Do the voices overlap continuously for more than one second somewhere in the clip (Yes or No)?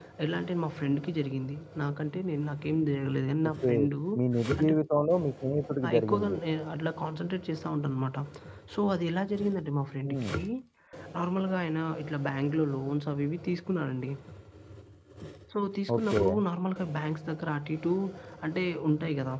No